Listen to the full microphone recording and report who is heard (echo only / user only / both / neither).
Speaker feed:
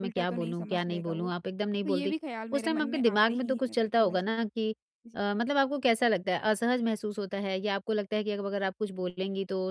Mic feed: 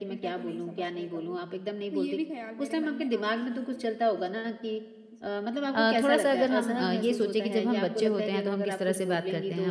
both